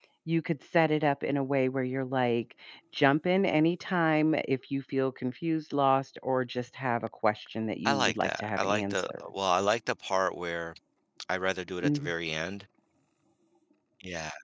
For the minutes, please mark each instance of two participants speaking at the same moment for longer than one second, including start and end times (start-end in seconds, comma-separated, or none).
7.8-9.2